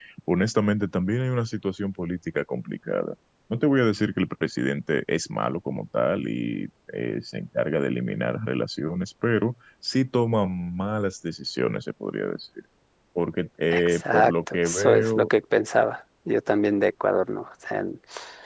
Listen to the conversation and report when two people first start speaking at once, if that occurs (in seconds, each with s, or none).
13.7 s